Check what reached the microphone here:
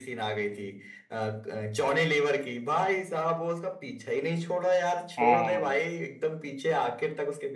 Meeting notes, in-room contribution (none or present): present